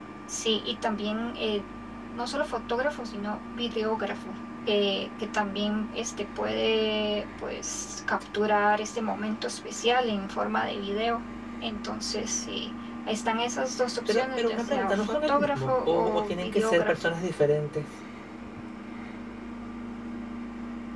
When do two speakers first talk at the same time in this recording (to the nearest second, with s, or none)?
14 s